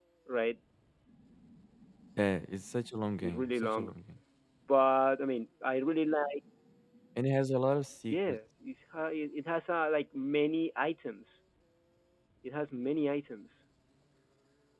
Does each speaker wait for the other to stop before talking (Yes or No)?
No